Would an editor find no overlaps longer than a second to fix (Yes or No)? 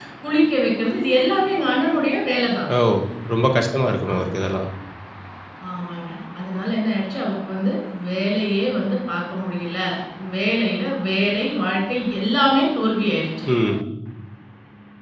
Yes